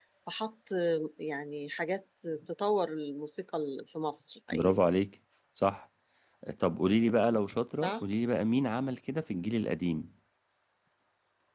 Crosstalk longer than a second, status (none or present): none